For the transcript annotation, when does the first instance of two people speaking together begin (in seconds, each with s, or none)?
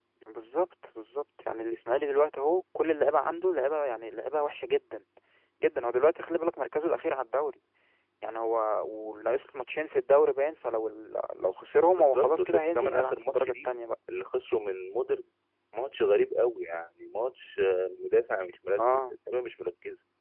11.9 s